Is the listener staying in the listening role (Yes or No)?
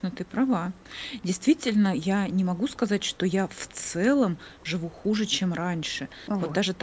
Yes